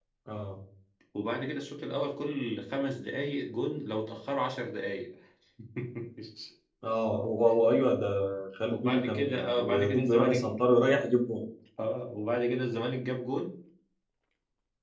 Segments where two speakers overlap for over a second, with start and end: 8.7-10.4

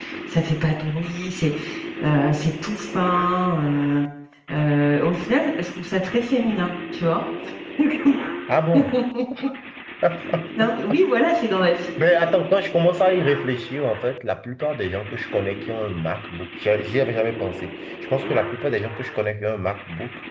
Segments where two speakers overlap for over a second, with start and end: none

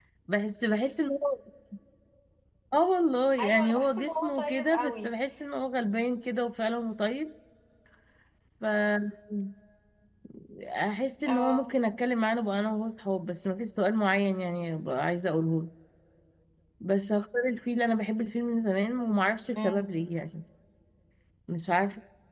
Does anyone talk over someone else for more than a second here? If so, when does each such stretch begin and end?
3.4-5.1

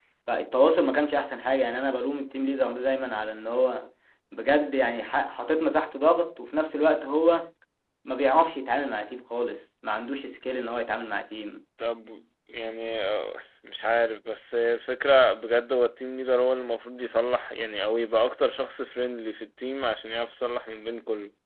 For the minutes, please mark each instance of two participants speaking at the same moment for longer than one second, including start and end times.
none

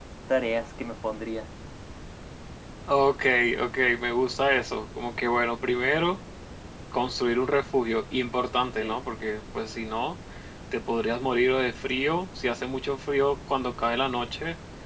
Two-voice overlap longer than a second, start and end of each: none

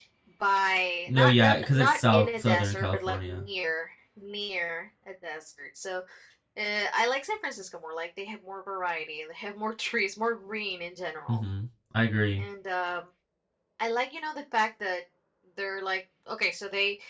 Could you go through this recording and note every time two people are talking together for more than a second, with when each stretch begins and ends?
1.1-3.5

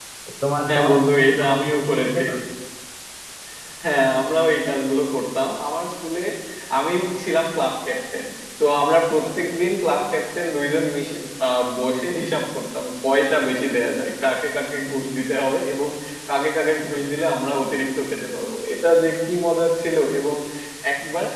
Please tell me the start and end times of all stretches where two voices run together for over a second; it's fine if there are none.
0.7-2.2

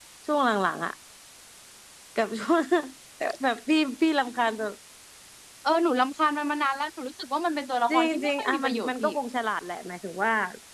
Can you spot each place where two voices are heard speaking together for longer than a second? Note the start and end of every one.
7.9-9.1

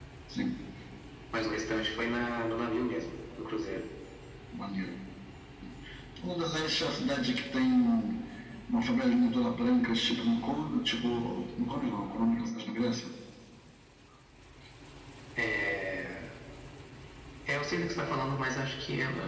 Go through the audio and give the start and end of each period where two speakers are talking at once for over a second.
none

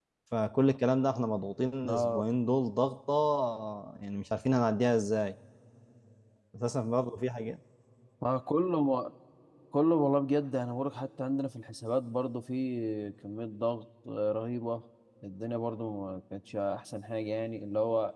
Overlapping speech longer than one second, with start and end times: none

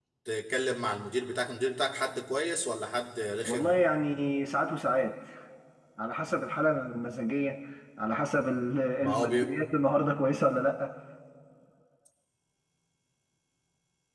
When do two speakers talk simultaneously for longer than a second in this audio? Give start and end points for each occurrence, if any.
none

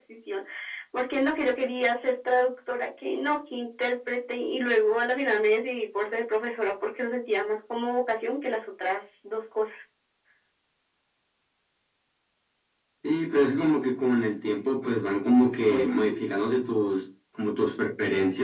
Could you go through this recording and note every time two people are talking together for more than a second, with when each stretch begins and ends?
none

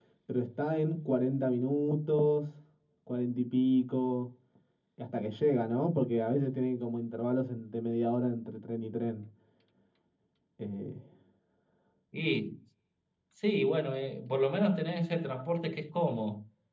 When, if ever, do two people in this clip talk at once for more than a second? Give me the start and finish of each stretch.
none

